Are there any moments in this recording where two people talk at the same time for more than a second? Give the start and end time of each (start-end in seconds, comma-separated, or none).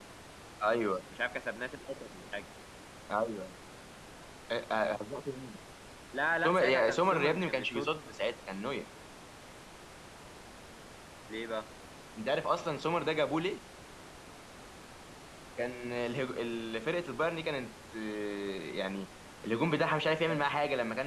6.5-7.9